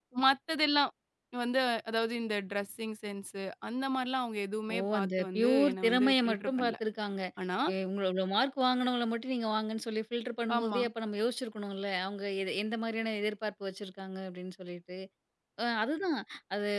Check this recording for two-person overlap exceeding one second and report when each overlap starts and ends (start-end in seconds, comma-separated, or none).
5.0-6.8